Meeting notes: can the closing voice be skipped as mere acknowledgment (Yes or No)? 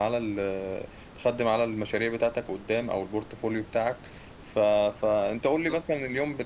Yes